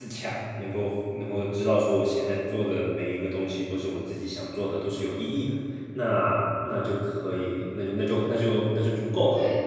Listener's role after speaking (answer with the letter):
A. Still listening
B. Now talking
B